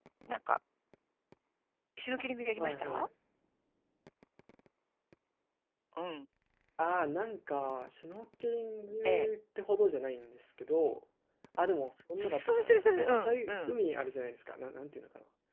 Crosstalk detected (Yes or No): Yes